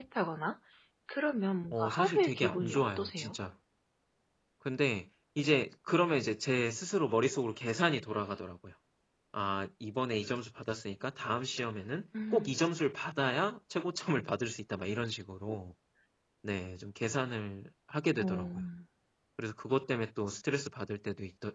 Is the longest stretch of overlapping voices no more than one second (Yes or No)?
No